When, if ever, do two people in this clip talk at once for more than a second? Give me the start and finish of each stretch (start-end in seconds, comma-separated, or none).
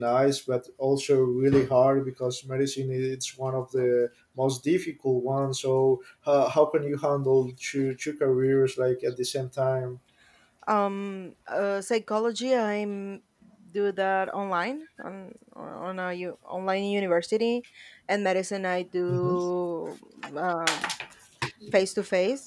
none